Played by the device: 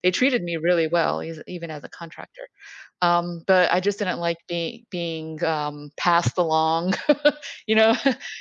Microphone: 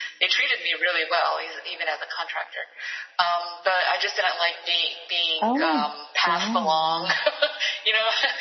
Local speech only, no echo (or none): Oh my god.